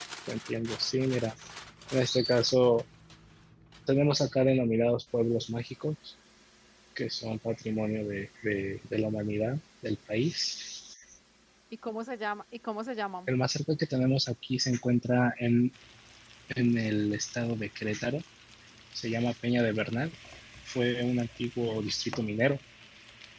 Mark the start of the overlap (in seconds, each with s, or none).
none